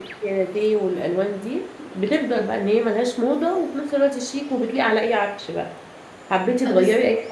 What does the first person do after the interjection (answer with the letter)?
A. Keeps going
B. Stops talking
A